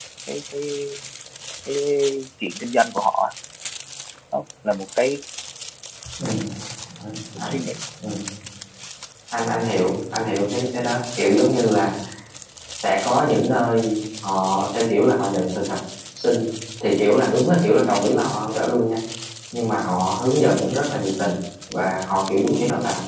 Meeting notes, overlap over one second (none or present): none